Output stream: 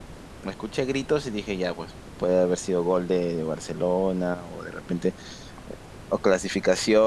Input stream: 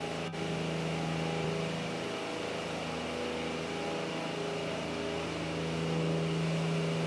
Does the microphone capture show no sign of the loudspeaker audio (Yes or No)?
Yes